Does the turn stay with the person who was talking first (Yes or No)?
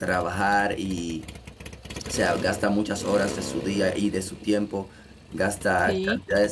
Yes